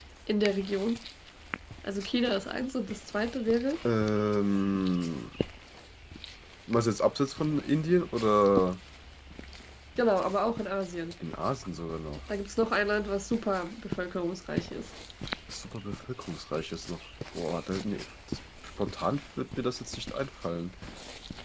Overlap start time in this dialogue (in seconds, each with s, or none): none